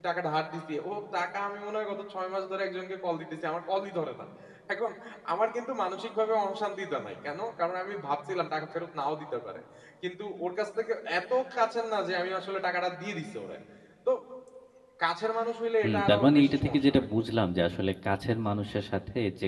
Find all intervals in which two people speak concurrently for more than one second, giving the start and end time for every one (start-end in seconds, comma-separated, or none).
15.8-17.1